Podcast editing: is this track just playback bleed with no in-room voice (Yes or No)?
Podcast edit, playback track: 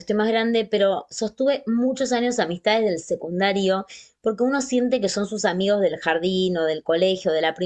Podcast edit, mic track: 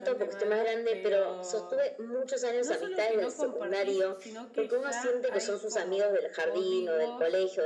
No